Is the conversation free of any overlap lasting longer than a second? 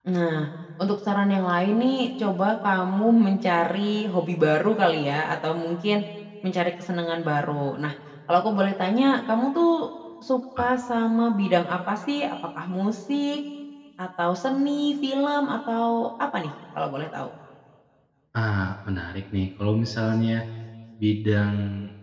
Yes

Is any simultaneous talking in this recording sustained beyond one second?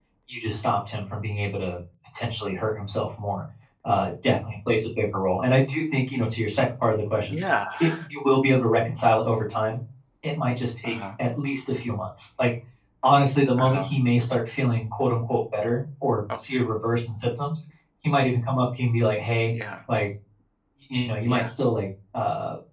No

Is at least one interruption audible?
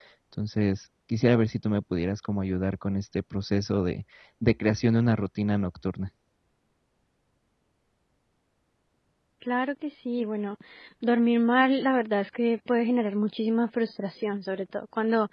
No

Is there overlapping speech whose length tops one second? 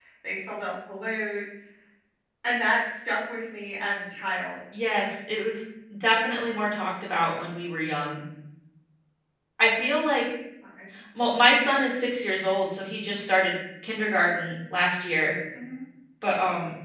No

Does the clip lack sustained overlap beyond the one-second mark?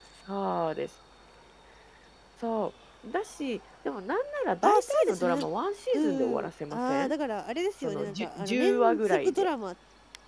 No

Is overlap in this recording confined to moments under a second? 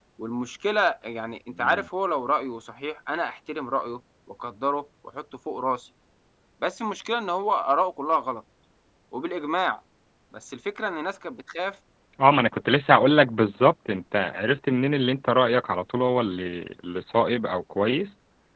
Yes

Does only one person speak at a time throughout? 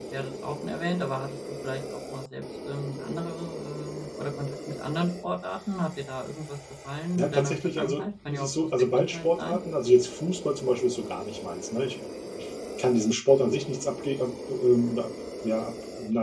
No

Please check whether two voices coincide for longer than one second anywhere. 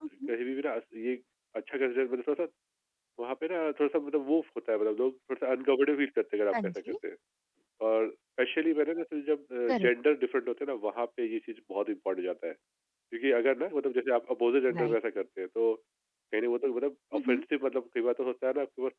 No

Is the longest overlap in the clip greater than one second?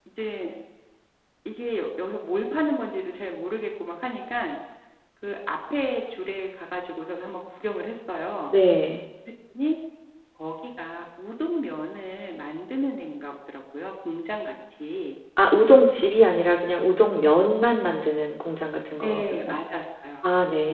No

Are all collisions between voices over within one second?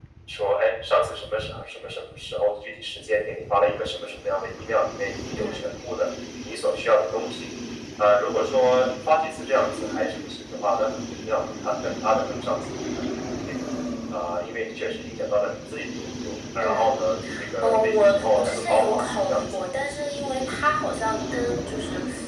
No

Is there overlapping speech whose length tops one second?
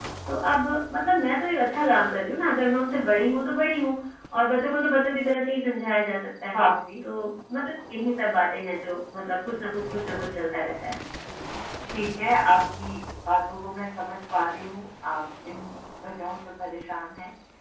No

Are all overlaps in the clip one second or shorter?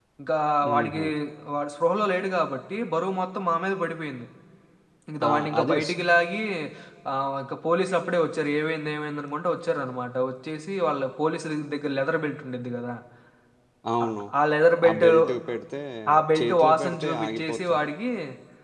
No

